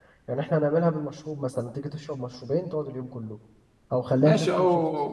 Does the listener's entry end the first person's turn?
Yes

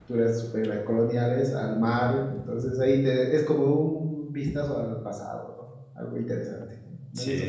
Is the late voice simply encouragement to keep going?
No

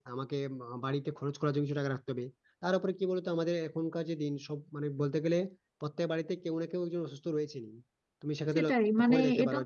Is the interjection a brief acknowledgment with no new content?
No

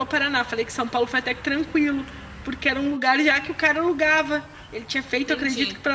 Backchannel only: Yes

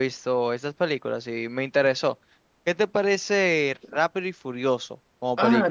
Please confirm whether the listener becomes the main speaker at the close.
Yes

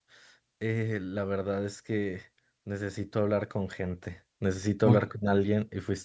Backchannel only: Yes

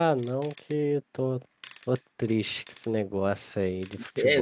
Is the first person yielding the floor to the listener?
Yes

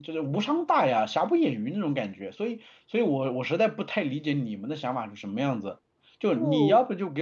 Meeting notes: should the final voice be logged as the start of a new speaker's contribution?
No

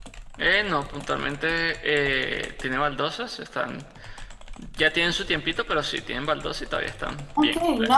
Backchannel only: No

